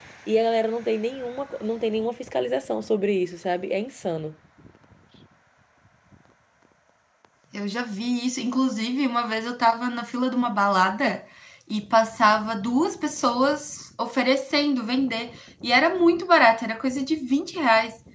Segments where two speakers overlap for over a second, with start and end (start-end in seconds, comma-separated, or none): none